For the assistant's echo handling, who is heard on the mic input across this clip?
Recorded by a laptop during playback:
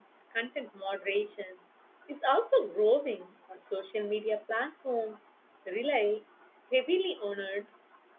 user only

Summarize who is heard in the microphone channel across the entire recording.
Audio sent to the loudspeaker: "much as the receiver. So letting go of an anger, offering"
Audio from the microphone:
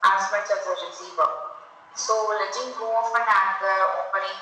echo only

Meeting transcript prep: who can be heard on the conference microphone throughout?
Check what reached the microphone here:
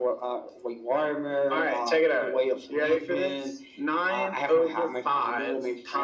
echo only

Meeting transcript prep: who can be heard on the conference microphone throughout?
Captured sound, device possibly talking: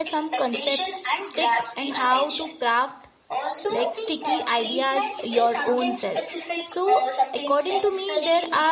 both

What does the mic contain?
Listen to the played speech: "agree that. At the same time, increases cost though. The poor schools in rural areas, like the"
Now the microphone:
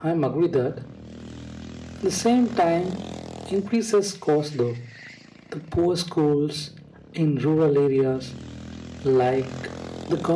echo only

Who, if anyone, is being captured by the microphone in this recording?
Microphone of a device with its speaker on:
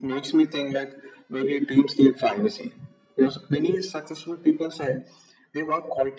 echo only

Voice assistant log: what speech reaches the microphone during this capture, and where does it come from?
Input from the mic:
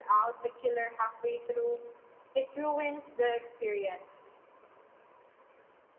echo only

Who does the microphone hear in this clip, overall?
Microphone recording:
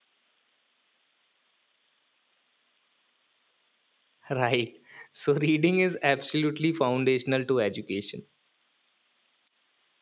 user only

